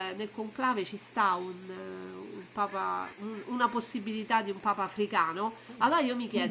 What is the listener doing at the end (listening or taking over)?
listening